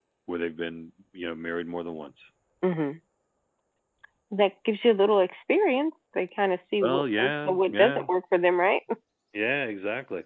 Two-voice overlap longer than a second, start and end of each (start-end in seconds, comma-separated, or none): 6.8-8.1